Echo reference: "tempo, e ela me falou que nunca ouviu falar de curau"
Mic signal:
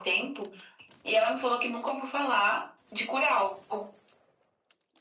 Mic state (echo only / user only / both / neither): echo only